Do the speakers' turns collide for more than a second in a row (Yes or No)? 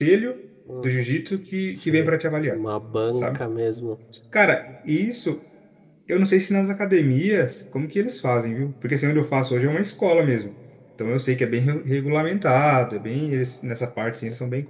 No